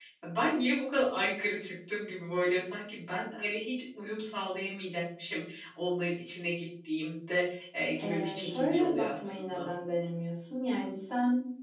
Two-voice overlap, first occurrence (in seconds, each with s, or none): 8.0 s